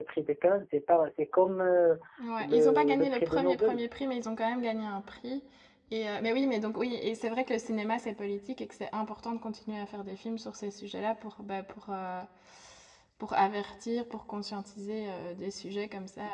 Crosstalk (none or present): present